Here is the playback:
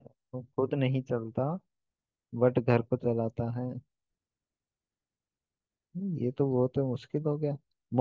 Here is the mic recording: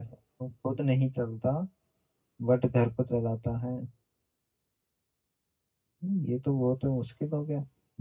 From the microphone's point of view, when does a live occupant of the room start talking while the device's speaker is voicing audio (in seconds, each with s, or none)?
none